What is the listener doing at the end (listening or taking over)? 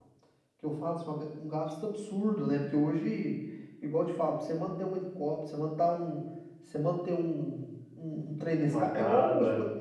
listening